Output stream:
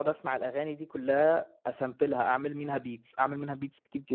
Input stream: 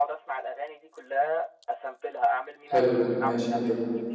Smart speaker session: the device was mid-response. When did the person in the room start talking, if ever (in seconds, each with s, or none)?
2.7 s